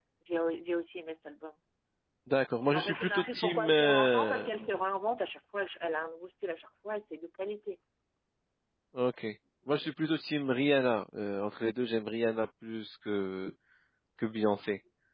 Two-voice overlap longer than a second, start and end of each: 2.7-4.5

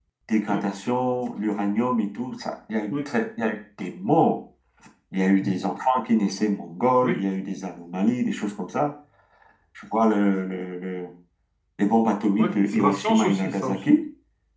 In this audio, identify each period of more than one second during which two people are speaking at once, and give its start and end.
12.4-13.8

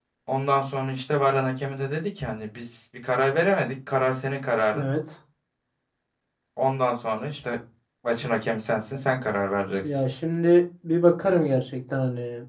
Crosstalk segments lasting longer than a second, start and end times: none

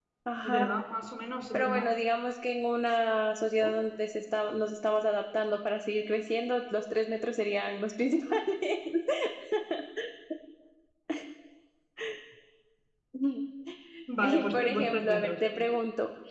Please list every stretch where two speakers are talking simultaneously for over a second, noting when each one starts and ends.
14.2-15.7

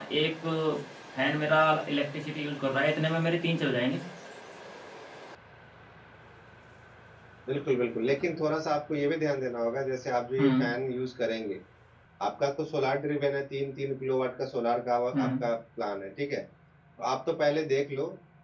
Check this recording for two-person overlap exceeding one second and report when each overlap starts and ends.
none

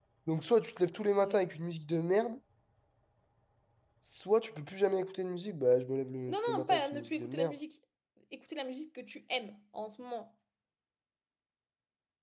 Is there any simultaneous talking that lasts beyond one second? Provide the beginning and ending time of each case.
6.3-7.5

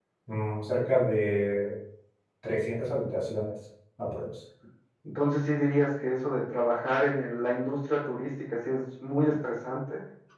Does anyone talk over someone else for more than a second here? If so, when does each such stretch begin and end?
none

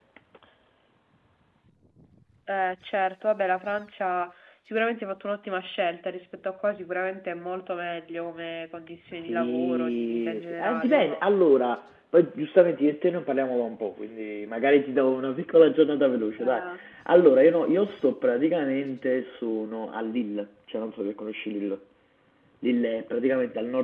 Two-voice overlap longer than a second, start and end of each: 9.3-11.2

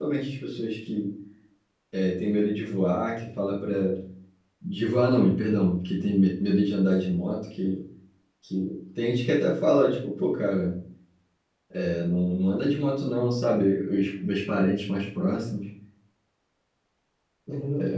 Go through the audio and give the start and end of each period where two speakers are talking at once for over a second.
none

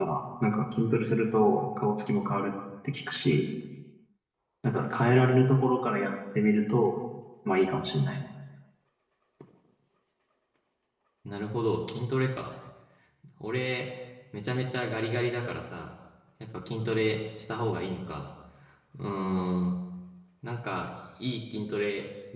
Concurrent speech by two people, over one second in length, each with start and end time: none

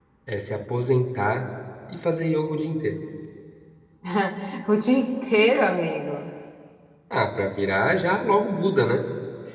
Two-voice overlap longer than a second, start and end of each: none

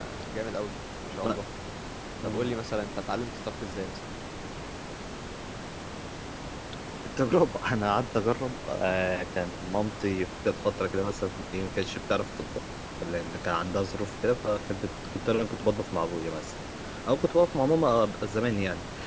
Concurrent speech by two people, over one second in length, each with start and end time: none

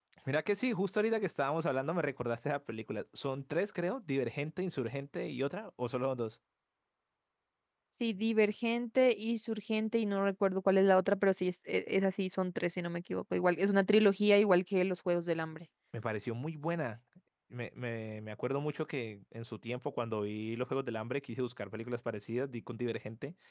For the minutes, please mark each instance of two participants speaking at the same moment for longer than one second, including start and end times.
none

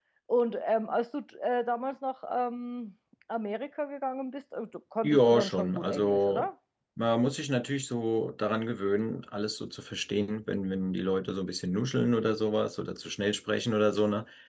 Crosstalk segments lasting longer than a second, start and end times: 5.0-6.5

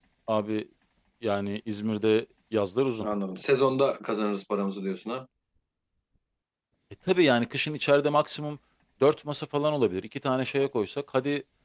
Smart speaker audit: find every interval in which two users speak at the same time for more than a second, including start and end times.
none

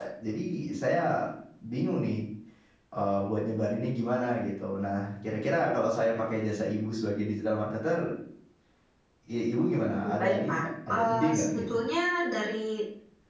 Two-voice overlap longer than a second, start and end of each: 10.0-11.8

